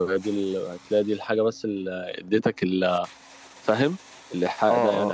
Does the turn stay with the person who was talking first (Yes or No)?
No